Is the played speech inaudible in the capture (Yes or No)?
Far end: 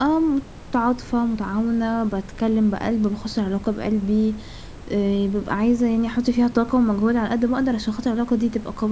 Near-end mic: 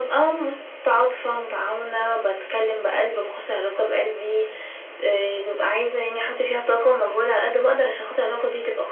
No